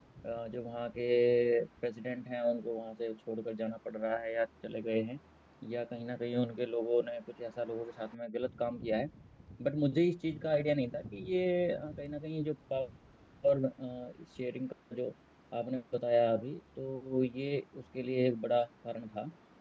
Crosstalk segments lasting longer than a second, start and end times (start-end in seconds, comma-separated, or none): none